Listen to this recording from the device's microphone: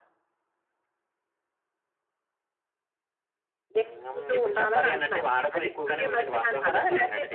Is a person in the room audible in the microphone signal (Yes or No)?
Yes